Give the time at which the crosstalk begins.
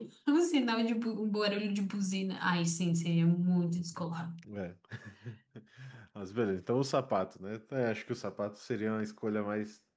none

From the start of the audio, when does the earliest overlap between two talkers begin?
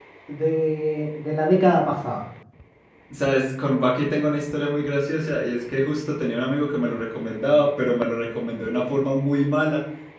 none

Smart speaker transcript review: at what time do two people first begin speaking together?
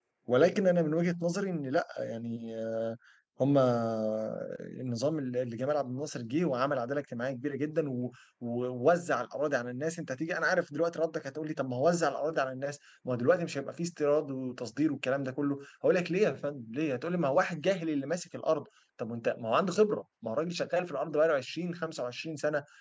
none

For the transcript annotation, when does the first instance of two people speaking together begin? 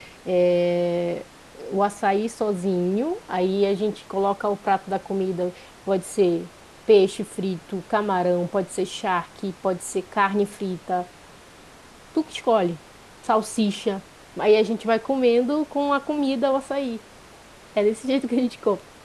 none

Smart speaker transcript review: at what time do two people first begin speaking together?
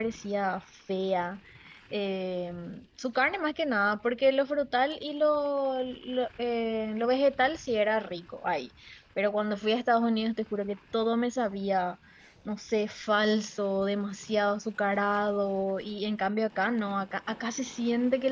none

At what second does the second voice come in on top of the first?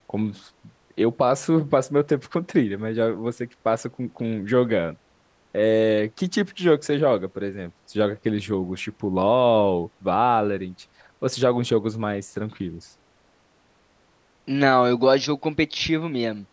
none

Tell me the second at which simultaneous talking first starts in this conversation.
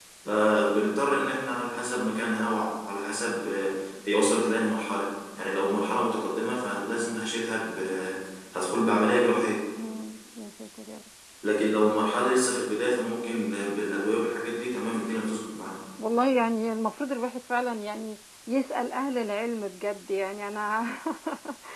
none

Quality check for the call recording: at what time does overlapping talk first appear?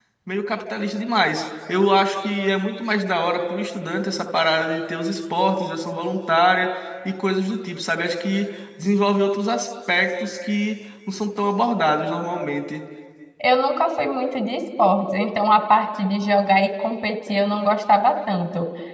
none

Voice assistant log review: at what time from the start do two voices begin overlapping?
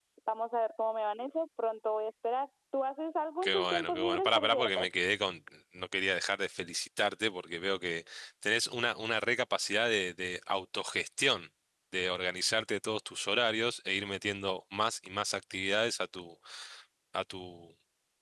3 s

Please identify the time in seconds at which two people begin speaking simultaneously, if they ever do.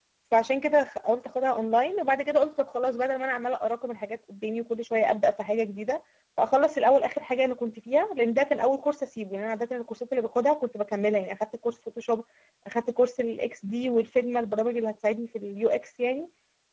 none

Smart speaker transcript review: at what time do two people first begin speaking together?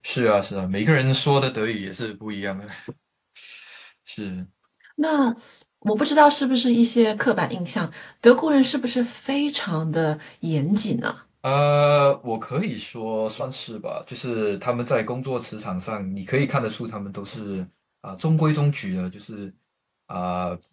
none

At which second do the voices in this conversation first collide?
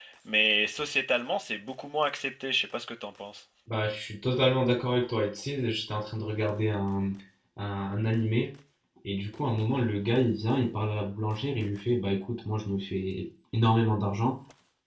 none

